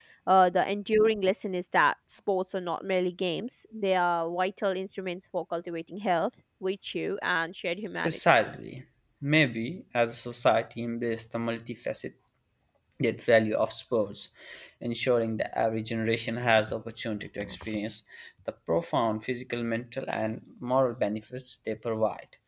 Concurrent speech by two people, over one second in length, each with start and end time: none

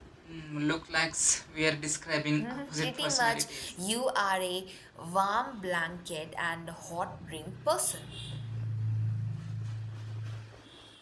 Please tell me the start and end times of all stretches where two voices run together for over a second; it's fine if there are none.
2.4-3.7

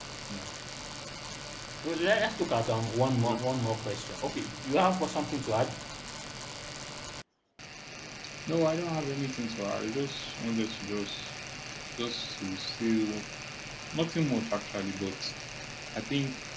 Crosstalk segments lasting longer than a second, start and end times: none

